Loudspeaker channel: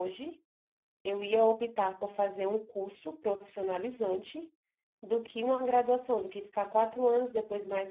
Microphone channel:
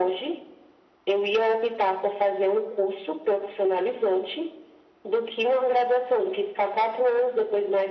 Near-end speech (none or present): none